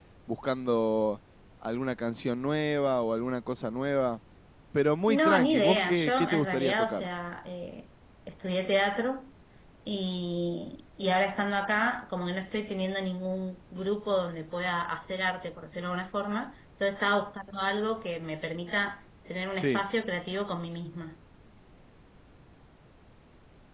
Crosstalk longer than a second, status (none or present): present